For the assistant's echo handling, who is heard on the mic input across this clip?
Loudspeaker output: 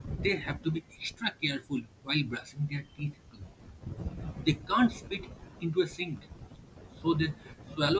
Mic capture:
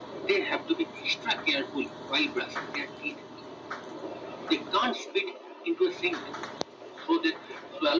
echo only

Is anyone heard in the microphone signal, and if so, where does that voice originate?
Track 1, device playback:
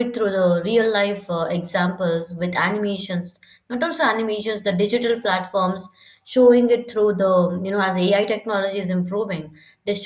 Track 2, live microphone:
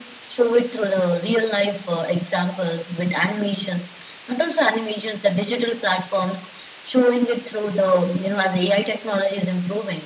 echo only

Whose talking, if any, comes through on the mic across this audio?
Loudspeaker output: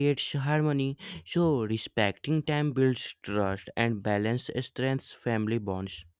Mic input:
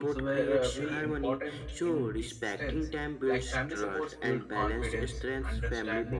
both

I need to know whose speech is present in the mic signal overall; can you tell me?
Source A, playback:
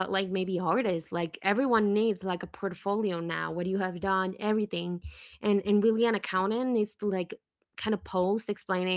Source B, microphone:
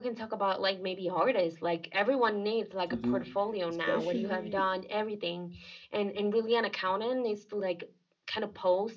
both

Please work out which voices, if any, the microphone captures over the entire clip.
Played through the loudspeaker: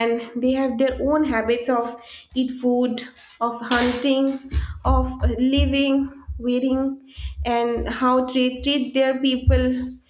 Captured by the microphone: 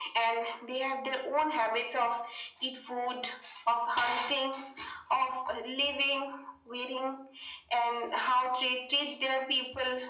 echo only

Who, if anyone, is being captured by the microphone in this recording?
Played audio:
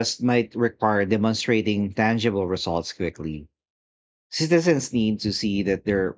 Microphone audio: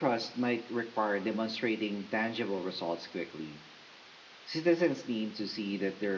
echo only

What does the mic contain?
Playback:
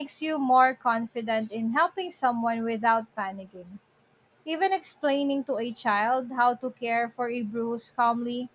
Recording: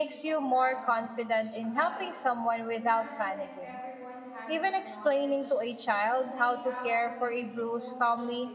both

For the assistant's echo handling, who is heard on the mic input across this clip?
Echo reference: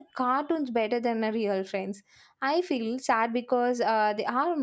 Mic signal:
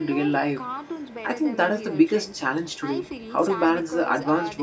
both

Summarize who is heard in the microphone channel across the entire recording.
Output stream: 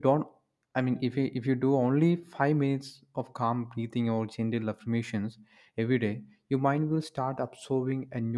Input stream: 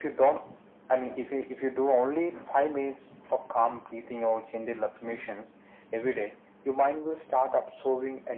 echo only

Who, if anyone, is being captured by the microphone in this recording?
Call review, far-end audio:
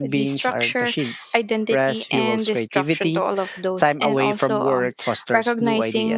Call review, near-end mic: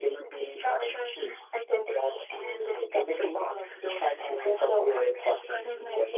both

